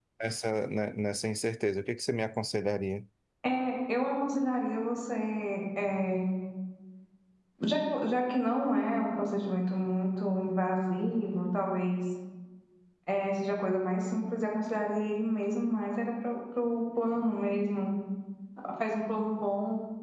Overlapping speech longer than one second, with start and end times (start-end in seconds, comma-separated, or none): none